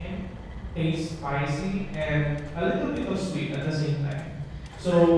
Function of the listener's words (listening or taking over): listening